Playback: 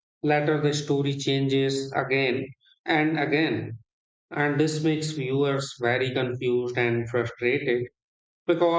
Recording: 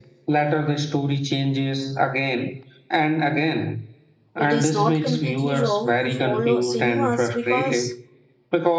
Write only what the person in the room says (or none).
It is not completely wrong to follow cinemas because